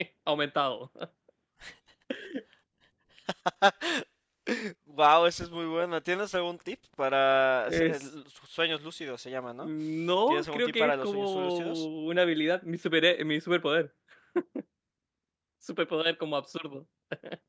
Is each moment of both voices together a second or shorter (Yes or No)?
No